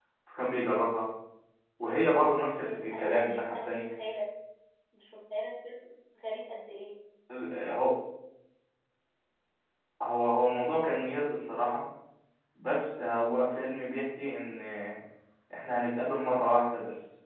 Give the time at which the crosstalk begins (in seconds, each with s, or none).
2.6 s